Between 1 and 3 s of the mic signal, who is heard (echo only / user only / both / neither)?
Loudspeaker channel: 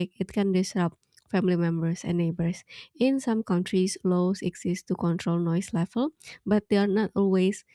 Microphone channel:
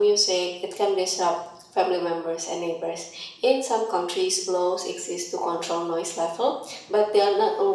echo only